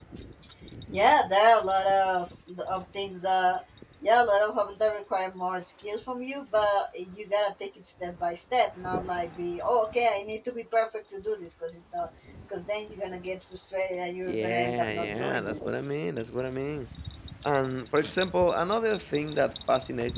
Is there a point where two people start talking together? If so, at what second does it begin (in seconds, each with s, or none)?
14.3 s